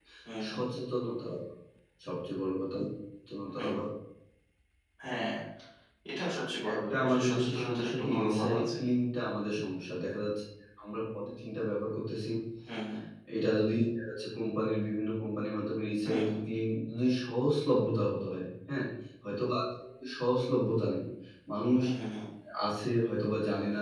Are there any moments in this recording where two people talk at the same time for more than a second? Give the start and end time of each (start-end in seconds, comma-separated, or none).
6.7-8.8